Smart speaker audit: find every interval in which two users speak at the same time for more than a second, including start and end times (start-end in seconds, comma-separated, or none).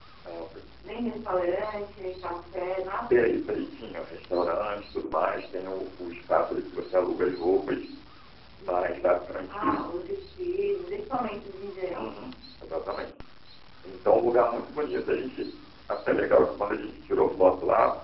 none